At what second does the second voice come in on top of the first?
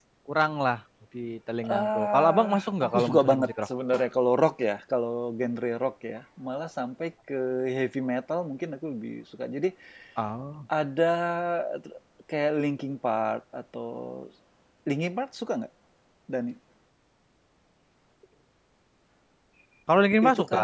1.8 s

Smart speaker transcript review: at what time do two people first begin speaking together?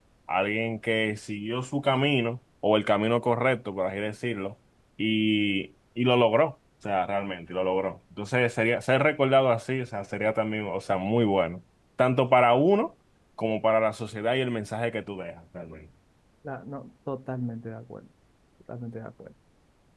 none

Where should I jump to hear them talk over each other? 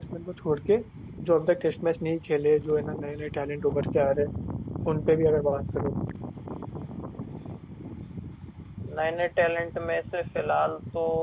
none

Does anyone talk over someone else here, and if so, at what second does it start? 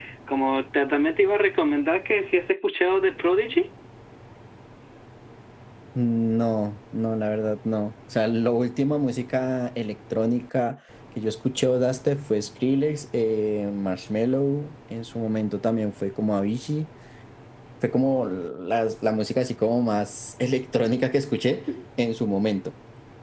none

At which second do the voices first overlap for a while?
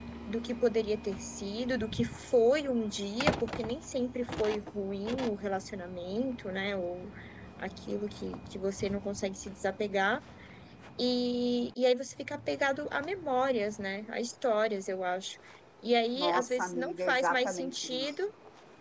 16.2 s

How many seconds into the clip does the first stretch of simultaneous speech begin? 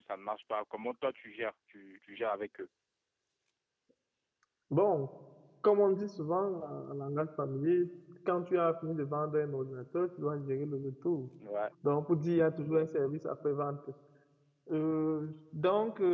none

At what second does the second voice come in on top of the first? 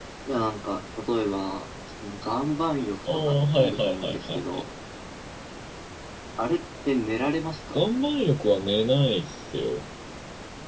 3.1 s

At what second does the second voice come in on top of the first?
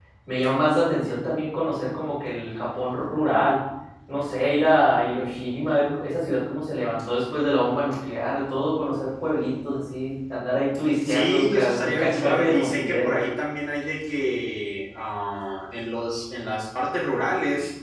11.1 s

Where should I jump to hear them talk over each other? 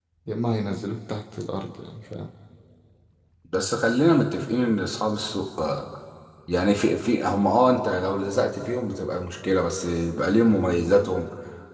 none

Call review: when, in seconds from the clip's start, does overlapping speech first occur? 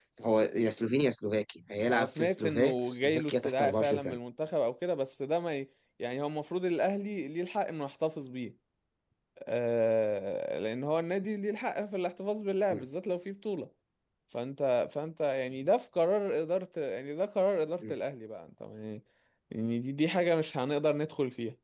1.9 s

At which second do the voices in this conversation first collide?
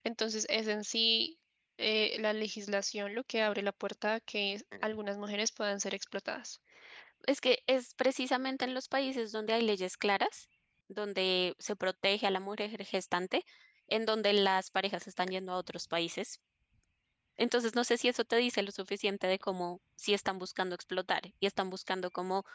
none

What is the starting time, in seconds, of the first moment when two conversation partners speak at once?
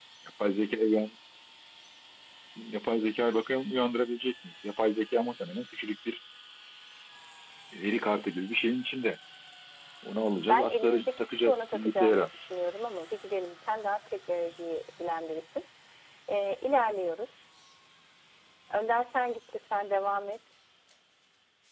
10.5 s

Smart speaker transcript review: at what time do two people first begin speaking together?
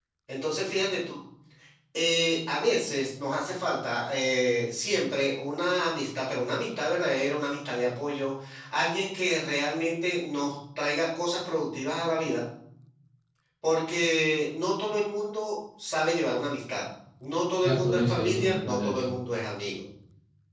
17.6 s

